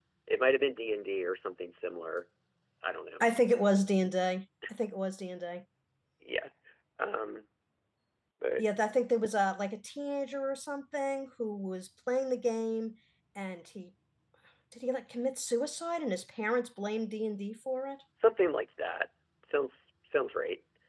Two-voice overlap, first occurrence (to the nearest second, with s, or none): none